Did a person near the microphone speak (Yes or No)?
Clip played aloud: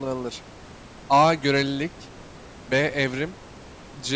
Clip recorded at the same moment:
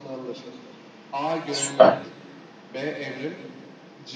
Yes